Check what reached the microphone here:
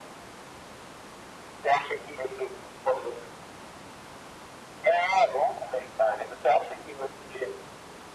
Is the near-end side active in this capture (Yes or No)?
No